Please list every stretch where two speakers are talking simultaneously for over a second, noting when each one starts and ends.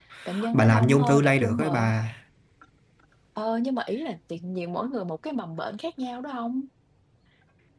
0.5-1.9

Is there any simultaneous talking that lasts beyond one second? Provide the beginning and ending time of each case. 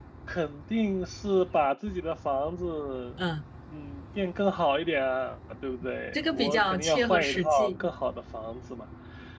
6.1-7.9

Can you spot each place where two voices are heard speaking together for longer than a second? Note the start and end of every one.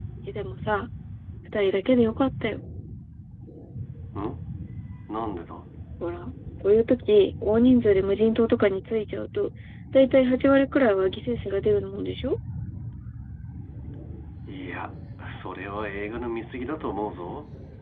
none

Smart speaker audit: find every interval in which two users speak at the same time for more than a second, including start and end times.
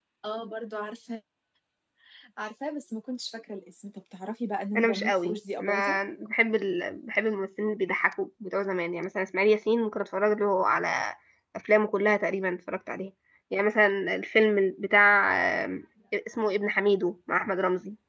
4.8-6.0

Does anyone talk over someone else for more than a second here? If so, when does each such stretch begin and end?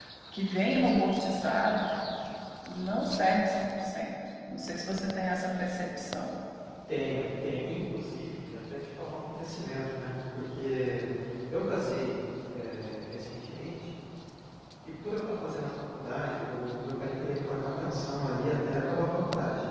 none

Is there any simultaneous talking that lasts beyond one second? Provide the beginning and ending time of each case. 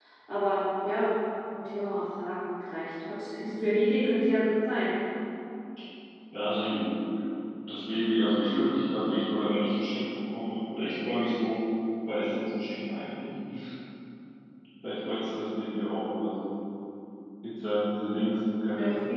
none

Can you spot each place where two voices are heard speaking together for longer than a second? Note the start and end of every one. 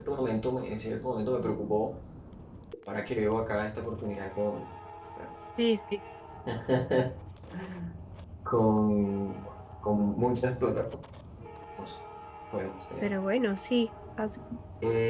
none

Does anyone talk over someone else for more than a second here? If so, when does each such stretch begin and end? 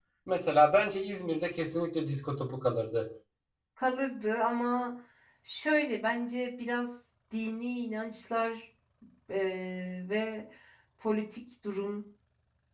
none

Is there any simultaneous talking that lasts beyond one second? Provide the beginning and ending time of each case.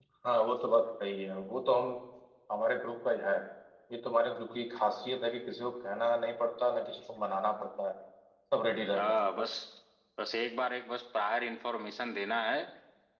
none

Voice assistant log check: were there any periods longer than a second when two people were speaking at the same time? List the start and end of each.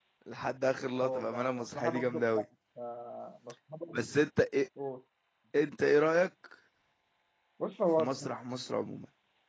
1.0-2.4

